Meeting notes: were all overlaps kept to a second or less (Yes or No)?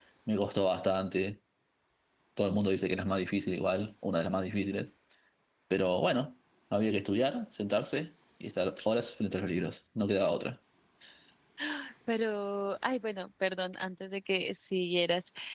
Yes